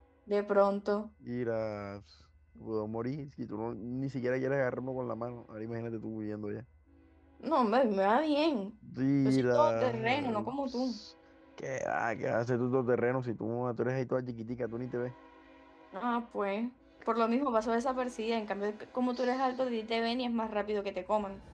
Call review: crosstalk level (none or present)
present